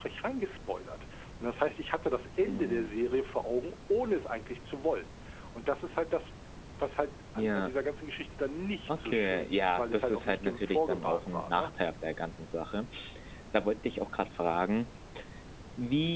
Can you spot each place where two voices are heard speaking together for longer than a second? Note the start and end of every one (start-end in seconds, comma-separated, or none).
8.9-11.7